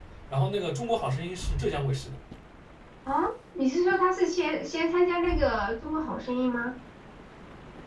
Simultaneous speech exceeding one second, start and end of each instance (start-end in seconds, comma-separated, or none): none